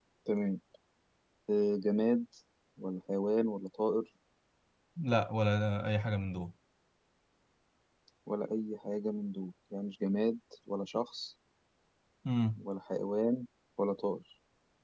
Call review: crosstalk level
none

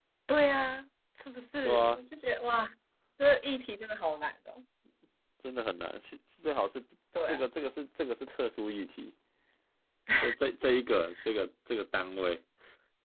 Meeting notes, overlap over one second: none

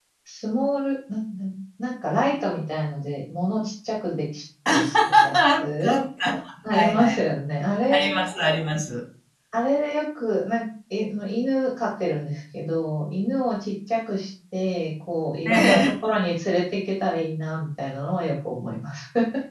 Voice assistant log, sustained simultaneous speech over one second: present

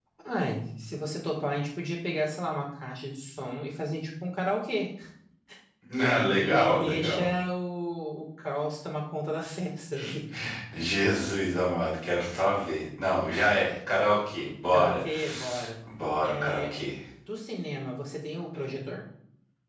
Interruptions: present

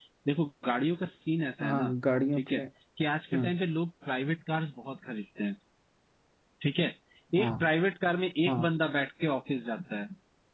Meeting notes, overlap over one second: none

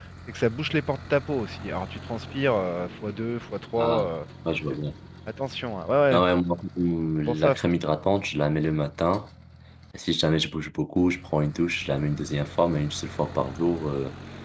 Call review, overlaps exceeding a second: none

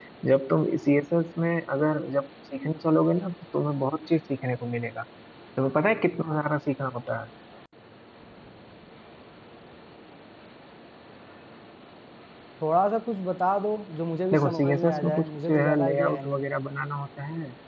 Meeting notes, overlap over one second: present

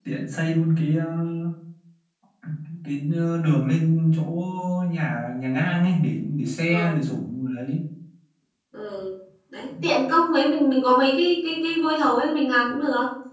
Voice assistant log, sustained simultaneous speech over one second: none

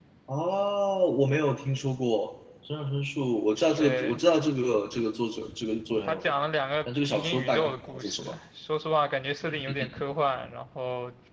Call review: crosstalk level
present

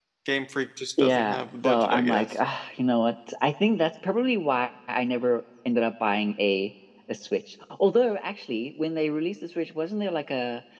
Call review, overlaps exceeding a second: present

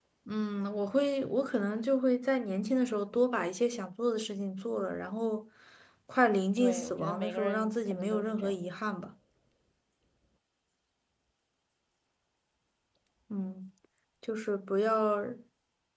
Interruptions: present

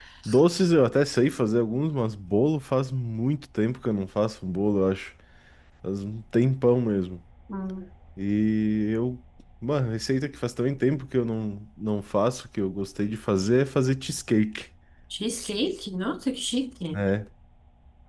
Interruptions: none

